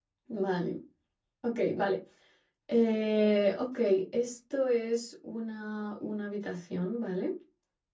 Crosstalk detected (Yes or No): No